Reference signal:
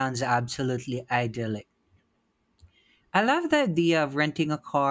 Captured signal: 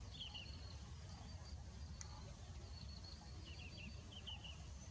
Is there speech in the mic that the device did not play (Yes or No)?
No